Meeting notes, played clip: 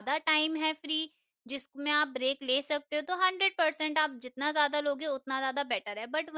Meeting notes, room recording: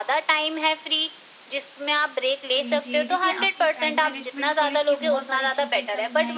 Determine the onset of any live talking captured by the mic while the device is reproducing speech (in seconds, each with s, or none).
2.5 s